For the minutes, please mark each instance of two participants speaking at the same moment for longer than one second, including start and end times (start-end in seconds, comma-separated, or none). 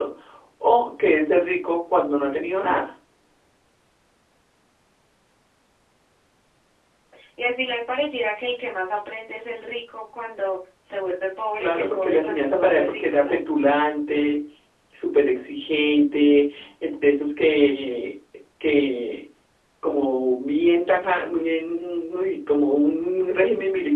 11.6-13.4